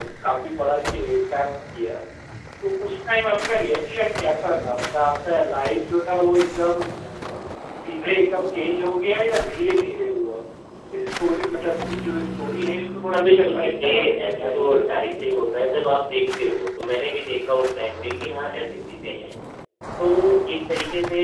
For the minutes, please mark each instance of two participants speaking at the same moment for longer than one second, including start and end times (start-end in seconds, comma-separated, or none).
13.1-15.2